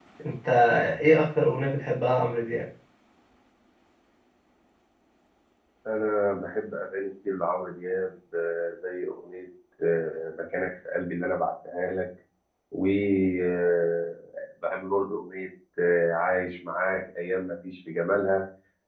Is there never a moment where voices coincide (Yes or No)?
Yes